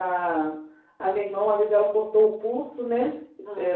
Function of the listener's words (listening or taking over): listening